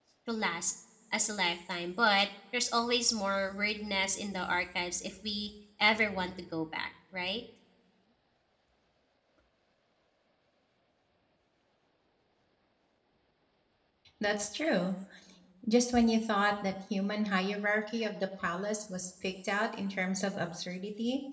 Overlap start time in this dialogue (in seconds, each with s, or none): none